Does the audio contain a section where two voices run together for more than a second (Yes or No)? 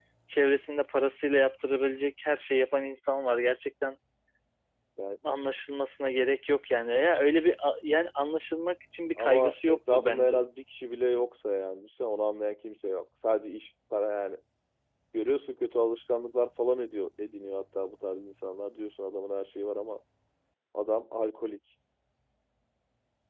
Yes